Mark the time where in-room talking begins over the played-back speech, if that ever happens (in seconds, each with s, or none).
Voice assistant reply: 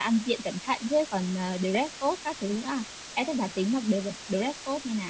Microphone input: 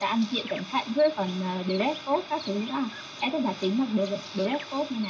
none